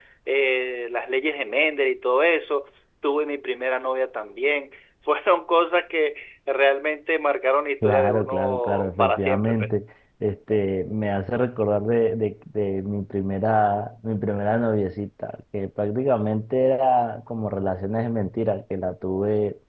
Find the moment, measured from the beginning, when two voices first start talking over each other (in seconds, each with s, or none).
7.8 s